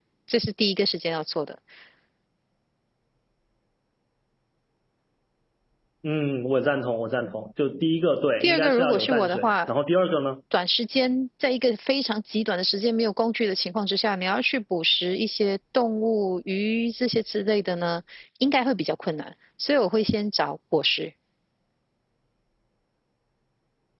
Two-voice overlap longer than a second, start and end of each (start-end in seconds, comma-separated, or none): 8.4-9.7